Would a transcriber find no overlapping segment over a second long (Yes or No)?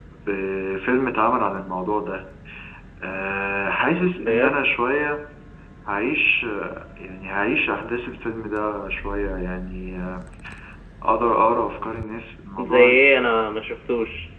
Yes